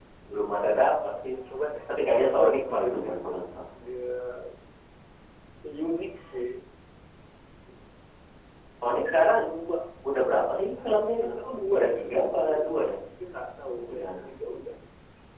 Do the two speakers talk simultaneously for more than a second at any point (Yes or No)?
Yes